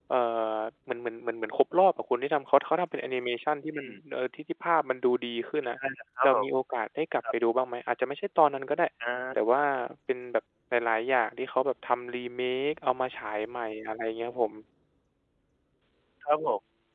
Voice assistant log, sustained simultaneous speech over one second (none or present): none